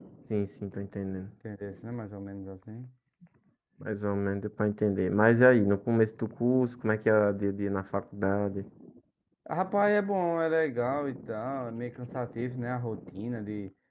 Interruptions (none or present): none